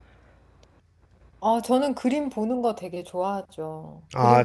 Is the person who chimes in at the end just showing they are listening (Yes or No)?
Yes